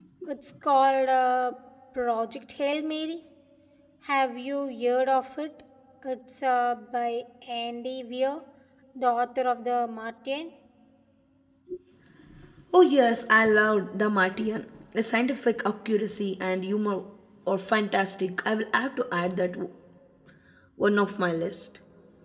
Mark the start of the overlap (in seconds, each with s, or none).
none